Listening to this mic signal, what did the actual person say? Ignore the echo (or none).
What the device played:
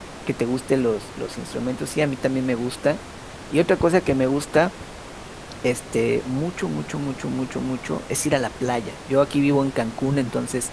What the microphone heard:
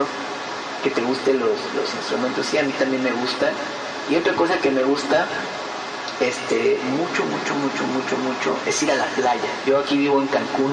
none